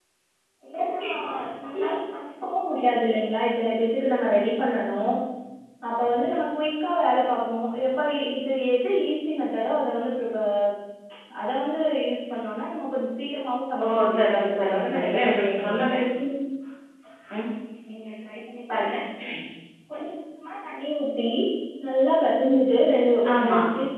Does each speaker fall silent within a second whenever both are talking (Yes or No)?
No